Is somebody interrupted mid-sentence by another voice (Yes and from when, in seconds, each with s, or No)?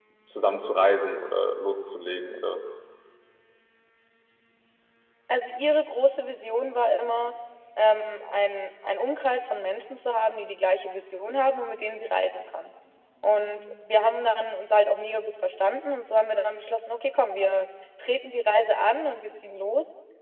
No